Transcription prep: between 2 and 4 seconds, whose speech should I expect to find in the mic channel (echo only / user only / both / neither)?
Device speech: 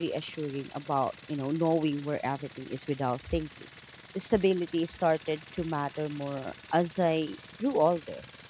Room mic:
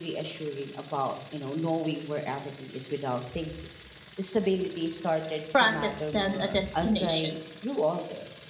echo only